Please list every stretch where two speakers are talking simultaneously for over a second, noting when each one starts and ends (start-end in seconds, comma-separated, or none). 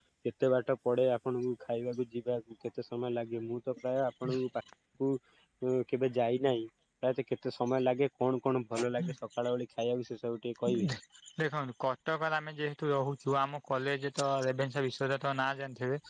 none